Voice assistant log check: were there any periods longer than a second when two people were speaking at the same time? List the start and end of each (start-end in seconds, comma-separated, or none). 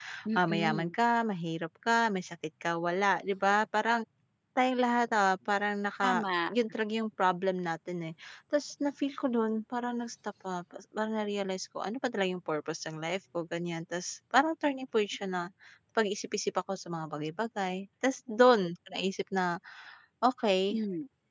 none